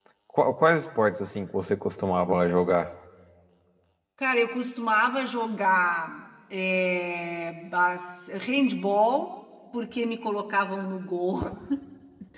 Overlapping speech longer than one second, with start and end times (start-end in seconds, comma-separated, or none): none